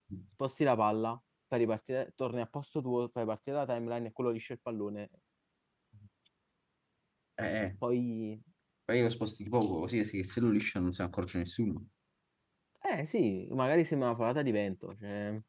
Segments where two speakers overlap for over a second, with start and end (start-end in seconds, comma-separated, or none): none